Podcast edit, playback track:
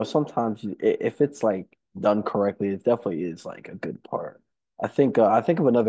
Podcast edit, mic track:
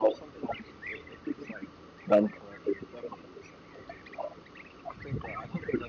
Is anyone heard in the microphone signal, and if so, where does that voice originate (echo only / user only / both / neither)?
echo only